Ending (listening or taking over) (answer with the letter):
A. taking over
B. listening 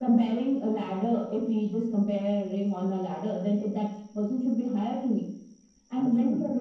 B